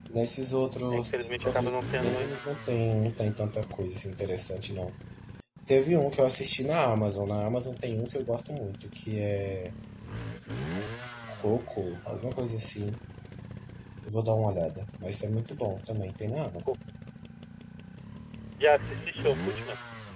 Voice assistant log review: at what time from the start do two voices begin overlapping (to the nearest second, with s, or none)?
1 s